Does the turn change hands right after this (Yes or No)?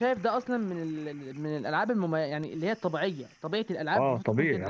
Yes